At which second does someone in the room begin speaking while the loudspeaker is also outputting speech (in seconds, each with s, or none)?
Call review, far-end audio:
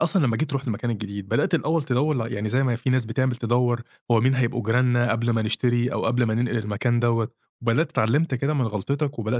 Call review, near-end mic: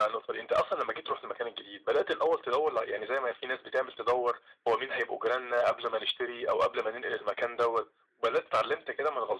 none